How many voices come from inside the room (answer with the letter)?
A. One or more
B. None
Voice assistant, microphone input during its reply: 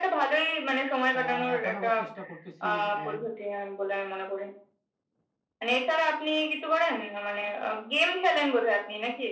A